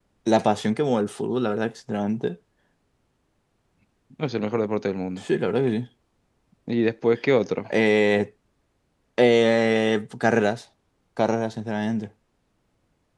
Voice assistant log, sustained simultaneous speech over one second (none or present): none